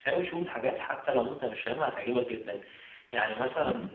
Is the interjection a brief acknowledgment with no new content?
No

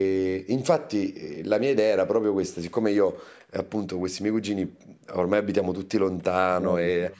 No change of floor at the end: Yes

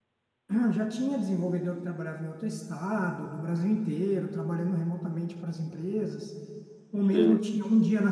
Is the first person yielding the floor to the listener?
No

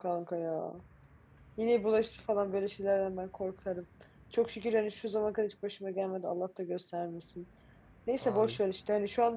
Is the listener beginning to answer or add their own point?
No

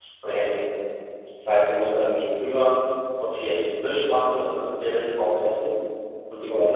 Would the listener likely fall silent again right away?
Yes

